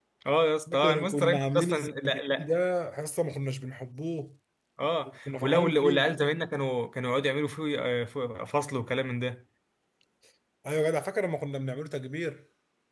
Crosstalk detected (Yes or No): Yes